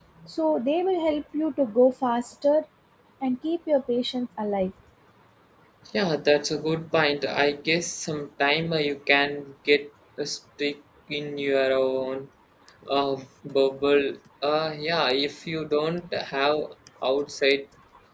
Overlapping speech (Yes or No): No